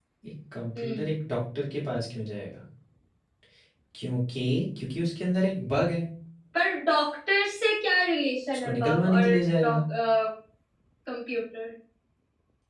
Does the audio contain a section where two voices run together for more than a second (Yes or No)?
Yes